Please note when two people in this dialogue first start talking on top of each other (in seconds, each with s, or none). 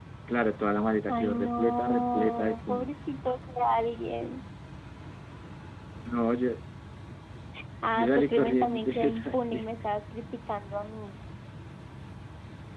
1.1 s